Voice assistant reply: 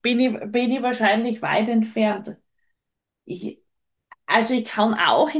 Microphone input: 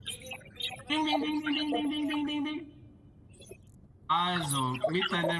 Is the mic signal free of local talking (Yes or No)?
No